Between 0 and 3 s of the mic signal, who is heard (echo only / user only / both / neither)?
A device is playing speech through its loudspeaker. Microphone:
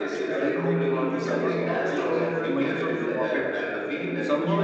both